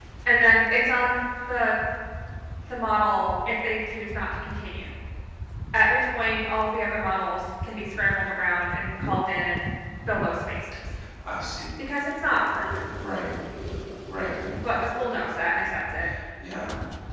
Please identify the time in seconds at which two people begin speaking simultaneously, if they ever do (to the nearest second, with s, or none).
none